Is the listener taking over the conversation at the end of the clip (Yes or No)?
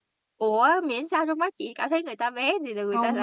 Yes